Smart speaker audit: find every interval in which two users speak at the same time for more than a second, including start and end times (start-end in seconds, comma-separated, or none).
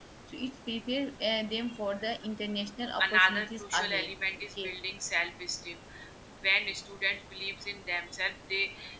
3.0-4.7